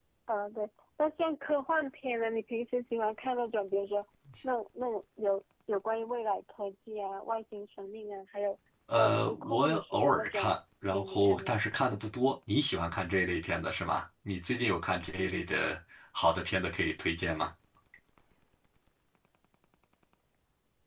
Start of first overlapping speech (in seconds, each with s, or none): 8.9 s